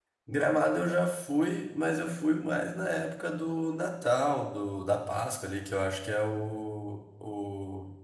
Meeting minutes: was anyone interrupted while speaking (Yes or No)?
No